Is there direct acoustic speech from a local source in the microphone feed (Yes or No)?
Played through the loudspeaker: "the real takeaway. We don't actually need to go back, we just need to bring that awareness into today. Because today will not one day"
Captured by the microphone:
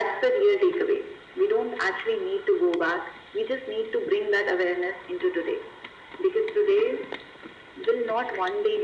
No